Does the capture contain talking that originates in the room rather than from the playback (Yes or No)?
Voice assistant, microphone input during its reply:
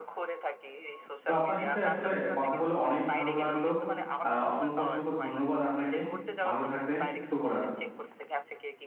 Yes